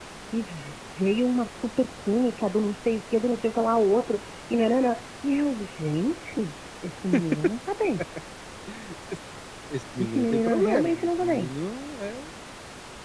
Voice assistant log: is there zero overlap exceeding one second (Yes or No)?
No